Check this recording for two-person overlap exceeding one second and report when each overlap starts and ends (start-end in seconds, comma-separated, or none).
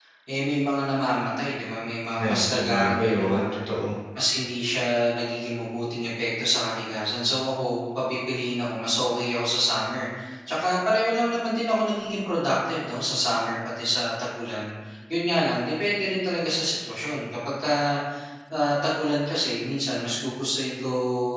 2.2-3.6